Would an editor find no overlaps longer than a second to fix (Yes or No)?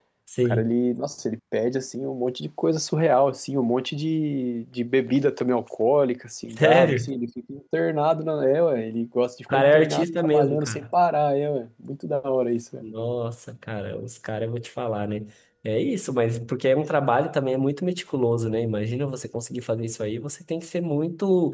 No